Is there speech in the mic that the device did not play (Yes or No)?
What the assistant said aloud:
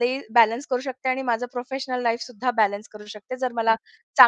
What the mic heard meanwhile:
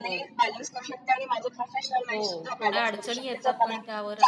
Yes